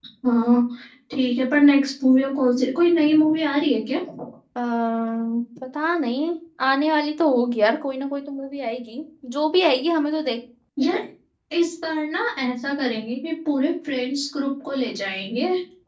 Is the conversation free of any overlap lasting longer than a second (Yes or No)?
Yes